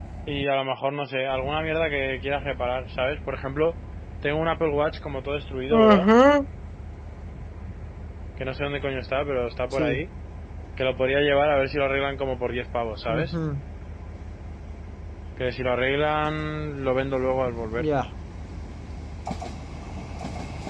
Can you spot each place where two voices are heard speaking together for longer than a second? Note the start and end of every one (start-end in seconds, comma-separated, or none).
none